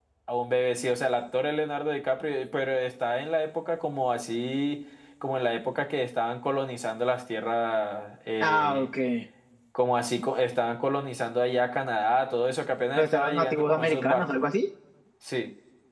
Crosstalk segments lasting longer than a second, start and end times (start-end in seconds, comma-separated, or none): 13.0-14.4